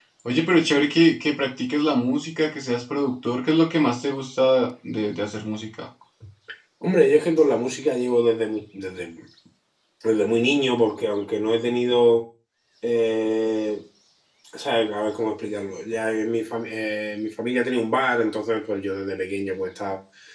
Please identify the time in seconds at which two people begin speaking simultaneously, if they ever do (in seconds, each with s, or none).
none